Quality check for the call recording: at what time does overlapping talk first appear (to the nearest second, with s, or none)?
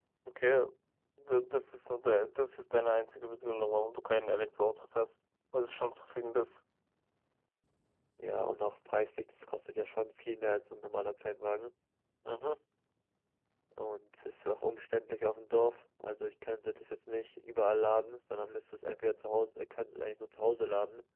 none